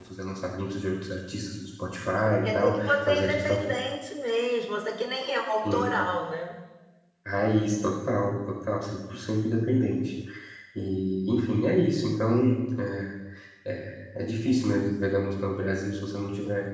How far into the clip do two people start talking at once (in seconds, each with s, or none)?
2.2 s